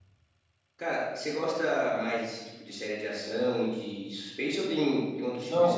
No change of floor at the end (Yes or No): No